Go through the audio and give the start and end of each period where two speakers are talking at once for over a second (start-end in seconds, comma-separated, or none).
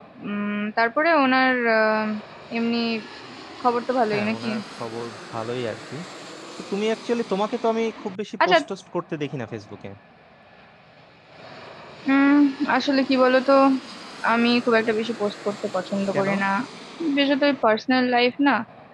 none